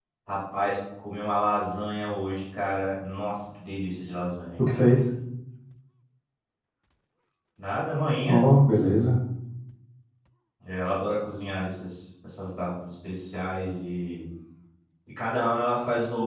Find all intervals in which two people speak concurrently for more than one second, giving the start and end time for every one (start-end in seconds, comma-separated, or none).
none